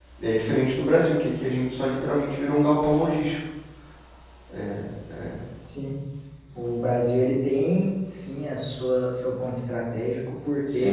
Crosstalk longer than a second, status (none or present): none